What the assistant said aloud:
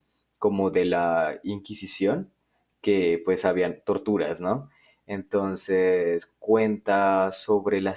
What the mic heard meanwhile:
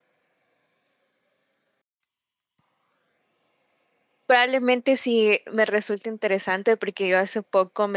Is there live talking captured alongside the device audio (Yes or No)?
Yes